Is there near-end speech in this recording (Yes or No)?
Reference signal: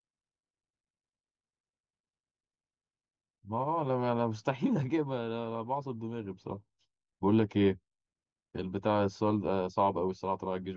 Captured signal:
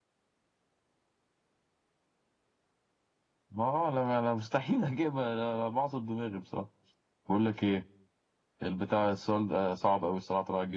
No